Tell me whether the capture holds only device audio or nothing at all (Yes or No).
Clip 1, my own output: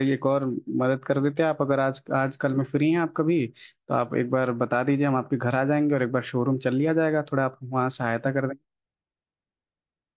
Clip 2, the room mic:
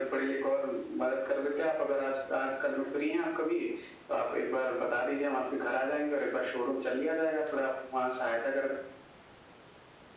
Yes